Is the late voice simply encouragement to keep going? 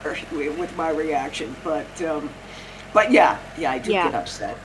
No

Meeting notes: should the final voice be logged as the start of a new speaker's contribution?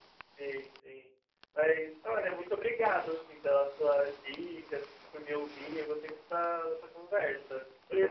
No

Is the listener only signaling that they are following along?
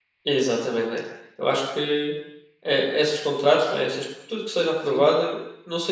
Yes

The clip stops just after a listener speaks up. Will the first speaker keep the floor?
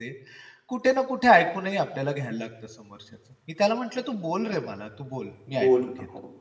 No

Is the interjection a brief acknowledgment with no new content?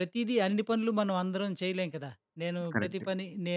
Yes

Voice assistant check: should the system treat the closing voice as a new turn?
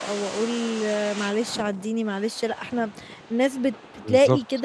No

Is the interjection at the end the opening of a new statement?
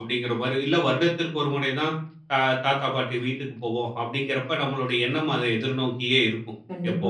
No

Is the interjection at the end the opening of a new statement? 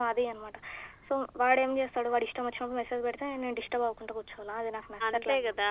Yes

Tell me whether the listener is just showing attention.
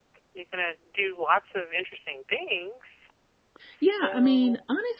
No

